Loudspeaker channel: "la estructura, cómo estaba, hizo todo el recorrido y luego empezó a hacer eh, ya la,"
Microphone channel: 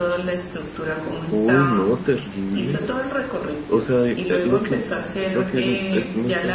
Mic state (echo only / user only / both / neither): both